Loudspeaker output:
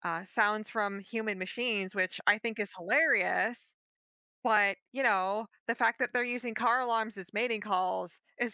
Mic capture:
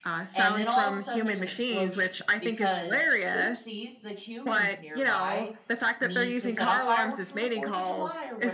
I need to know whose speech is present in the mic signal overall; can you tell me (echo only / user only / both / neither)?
both